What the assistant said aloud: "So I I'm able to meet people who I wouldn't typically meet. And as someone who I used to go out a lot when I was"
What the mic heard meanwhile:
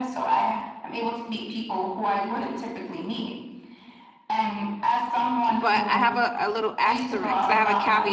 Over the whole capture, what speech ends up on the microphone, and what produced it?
both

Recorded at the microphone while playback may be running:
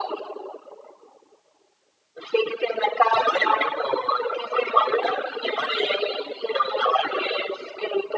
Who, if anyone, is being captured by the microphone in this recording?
echo only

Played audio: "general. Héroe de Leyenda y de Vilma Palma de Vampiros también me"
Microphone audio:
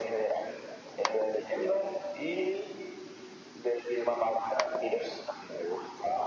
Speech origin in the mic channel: echo only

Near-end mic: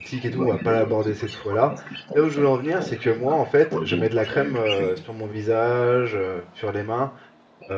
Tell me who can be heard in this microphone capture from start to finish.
both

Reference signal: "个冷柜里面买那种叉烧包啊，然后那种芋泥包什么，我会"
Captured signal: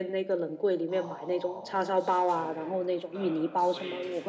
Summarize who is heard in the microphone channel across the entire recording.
both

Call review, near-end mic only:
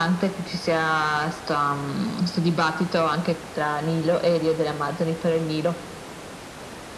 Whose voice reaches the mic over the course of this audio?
echo only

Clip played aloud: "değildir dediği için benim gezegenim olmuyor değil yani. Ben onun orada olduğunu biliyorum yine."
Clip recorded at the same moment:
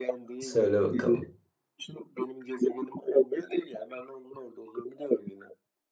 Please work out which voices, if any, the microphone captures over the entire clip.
both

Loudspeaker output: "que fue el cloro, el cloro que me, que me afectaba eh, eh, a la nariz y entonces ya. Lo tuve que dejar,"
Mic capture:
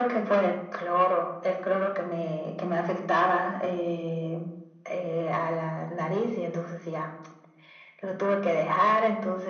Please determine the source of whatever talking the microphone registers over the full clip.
echo only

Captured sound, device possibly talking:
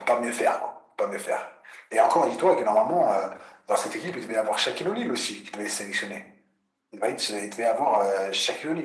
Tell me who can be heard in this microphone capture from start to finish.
echo only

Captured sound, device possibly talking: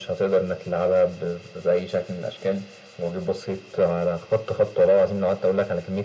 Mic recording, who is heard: echo only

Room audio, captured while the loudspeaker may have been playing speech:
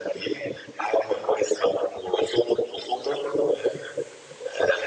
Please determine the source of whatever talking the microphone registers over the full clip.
echo only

